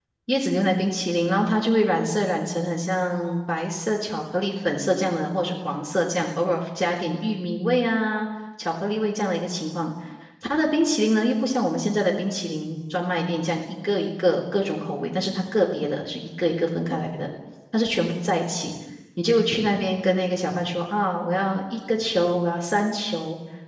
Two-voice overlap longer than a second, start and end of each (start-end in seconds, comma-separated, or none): none